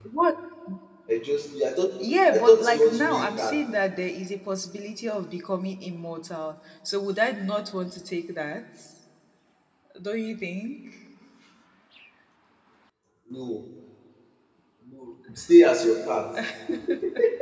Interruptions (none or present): present